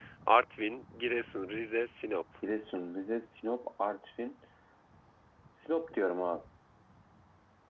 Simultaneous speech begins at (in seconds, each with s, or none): none